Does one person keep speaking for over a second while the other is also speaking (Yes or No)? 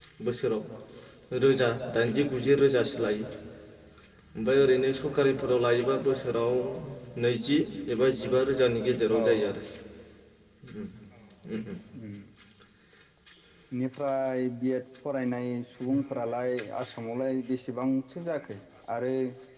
No